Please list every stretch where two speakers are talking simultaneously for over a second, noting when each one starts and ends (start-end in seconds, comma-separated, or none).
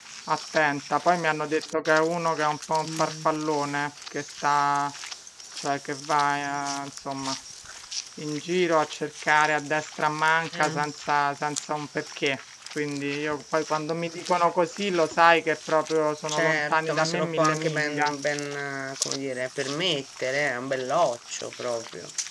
16.3-18.1